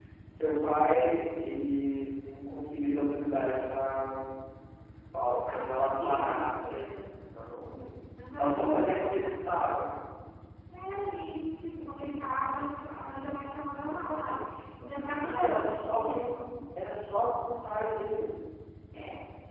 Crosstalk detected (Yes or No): Yes